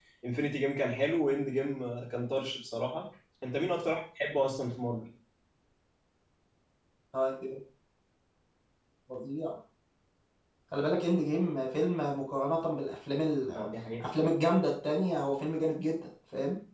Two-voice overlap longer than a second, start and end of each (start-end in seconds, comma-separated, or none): none